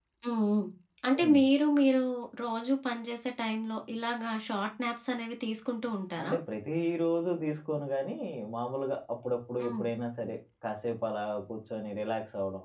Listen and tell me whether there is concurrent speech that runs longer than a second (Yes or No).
No